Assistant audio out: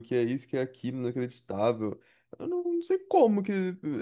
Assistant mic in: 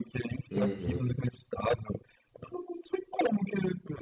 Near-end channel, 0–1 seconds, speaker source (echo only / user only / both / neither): both